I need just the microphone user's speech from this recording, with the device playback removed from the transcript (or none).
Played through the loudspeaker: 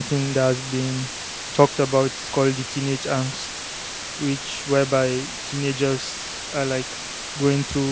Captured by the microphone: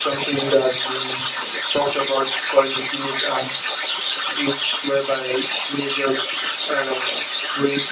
none